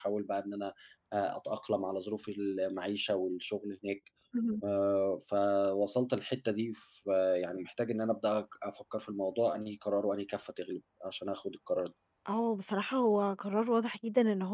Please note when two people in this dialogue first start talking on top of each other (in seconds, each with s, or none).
none